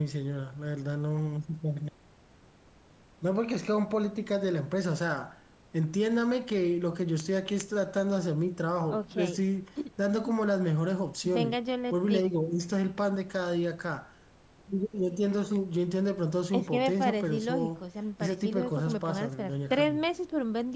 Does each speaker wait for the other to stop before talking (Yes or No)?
No